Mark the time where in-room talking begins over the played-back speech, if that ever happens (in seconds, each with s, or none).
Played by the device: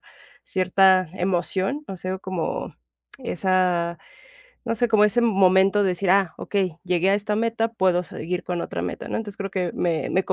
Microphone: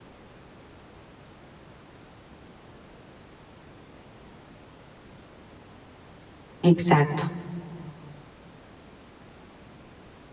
6.6 s